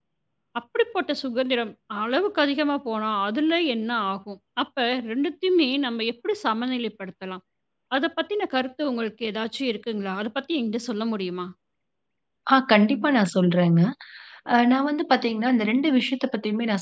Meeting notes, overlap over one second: none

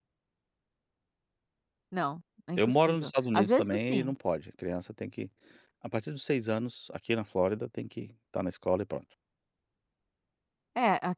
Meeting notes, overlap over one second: present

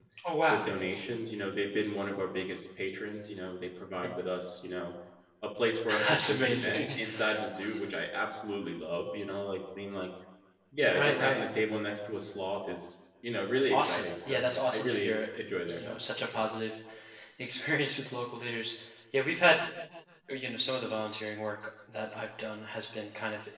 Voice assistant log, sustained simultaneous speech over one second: present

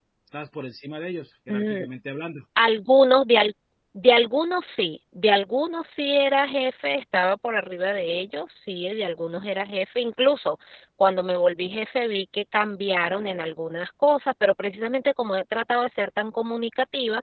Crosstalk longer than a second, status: none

